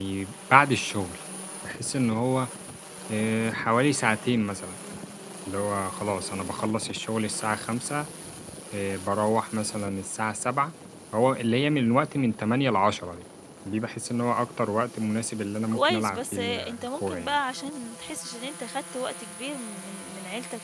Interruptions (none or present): present